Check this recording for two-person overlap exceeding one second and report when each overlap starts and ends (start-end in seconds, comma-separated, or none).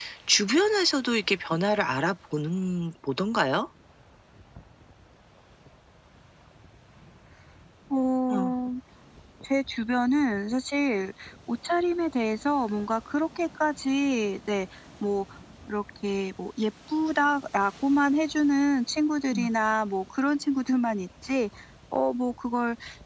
none